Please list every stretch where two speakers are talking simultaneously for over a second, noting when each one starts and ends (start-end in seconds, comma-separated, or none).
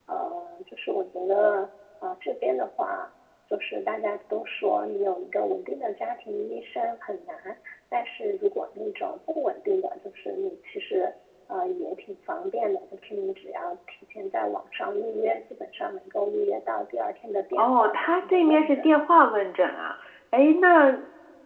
17.5-18.9